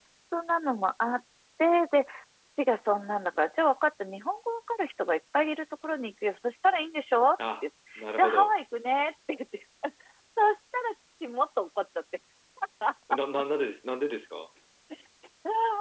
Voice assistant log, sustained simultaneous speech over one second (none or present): none